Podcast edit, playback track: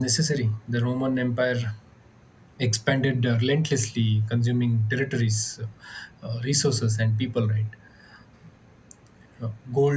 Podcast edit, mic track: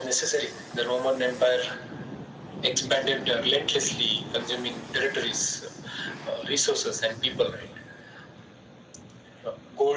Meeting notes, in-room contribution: none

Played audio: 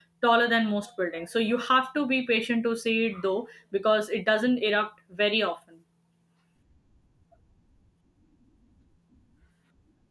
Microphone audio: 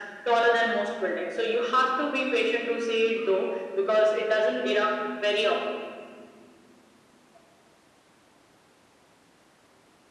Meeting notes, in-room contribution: none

